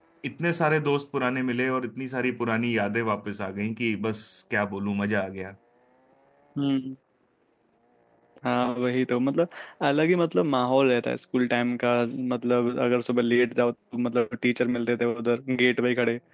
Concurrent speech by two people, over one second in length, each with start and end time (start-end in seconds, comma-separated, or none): none